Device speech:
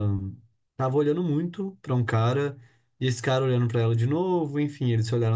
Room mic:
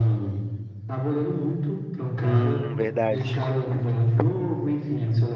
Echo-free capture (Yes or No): No